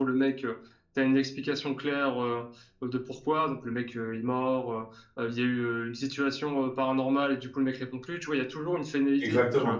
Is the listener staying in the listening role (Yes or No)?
No